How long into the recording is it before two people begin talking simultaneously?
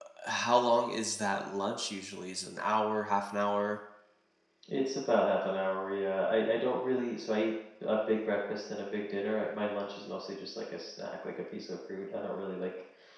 none

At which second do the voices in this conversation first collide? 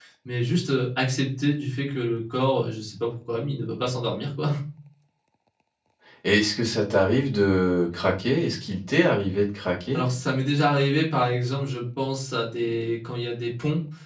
none

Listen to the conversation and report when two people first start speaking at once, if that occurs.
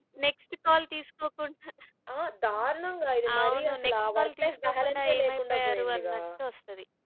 3.2 s

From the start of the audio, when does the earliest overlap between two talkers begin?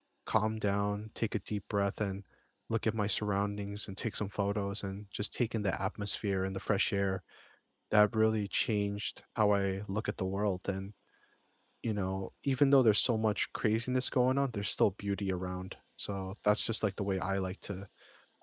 none

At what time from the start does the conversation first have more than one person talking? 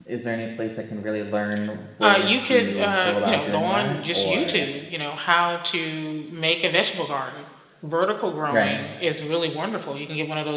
2.0 s

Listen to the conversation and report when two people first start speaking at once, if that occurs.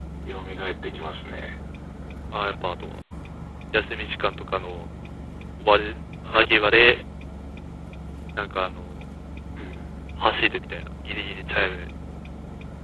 none

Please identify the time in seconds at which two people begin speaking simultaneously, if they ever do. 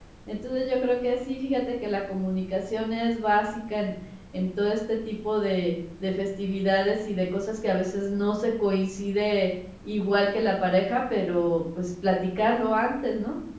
none

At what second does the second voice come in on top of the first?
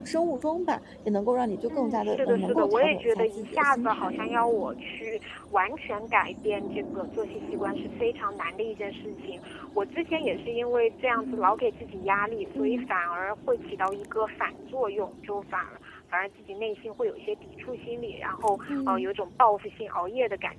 1.7 s

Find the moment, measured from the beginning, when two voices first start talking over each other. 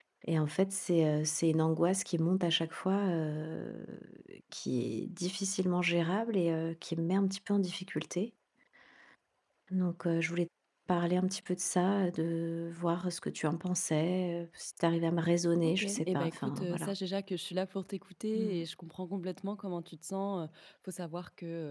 15.6 s

